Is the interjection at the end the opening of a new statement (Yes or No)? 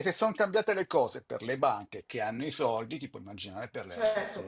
Yes